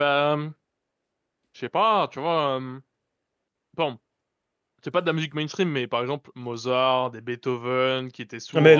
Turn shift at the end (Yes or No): Yes